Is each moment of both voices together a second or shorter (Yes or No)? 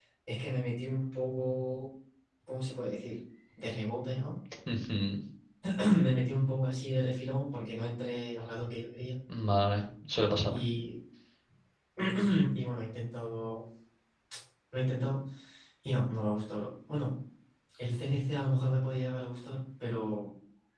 Yes